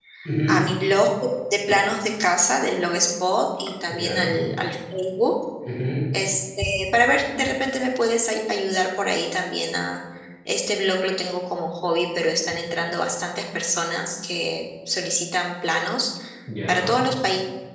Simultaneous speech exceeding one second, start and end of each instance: none

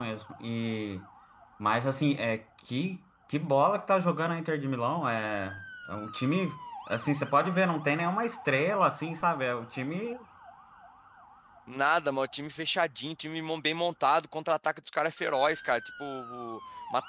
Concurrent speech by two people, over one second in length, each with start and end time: none

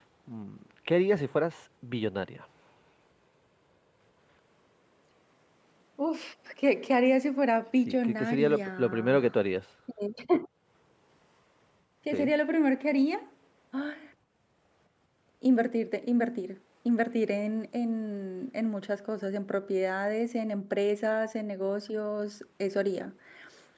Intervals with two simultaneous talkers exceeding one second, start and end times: 7.9-9.3

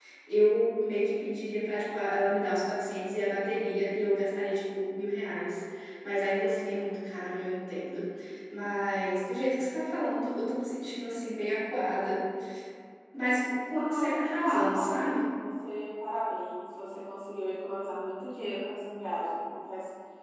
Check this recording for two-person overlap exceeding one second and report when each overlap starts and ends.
13.8-15.3

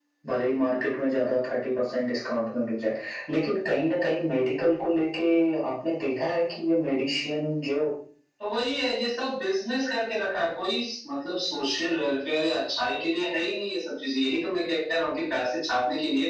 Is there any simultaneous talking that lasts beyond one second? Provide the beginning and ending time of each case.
none

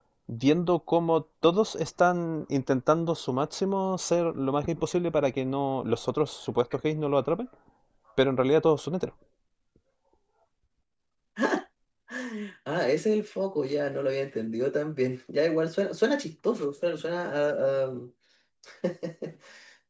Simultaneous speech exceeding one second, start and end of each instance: none

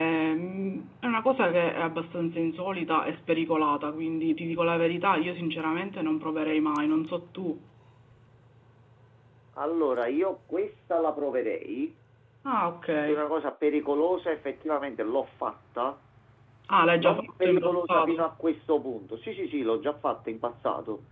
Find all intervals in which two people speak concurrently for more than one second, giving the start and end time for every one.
17.0-18.3

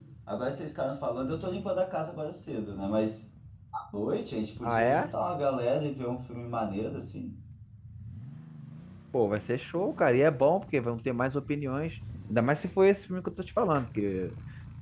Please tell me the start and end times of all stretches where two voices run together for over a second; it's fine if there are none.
none

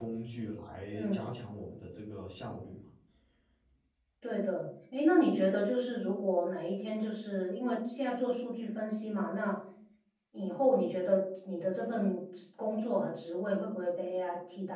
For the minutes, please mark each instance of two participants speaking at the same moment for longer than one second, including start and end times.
none

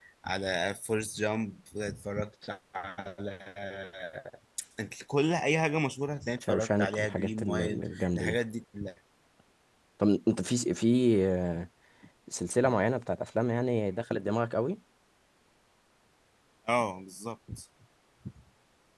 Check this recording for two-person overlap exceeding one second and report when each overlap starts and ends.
6.4-8.4

